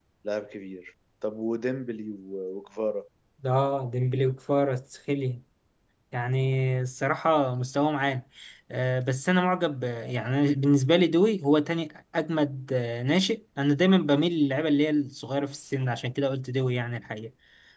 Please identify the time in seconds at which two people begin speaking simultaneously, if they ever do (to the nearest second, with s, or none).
none